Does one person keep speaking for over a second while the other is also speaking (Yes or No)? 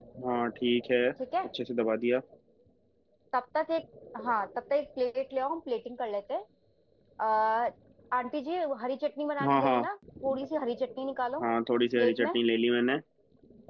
No